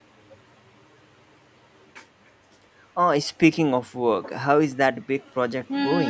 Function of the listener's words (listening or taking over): taking over